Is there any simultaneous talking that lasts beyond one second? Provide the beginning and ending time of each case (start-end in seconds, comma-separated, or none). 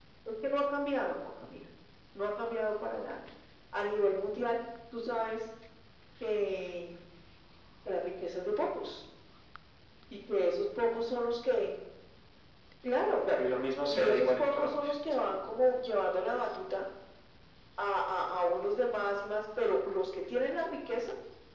13.9-15.2